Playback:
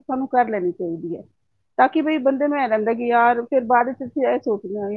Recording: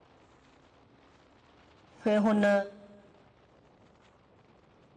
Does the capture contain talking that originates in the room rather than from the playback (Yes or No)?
Yes